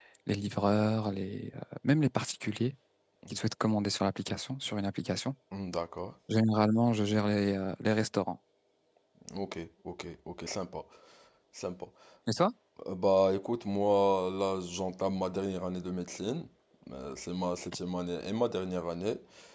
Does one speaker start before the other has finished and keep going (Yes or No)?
No